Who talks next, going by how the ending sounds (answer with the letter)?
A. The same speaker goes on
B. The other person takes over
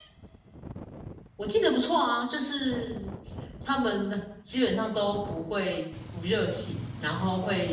A